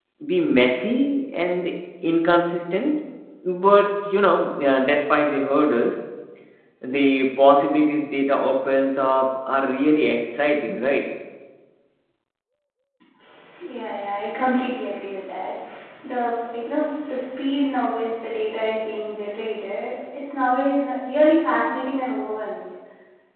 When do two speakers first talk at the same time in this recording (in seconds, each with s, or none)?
none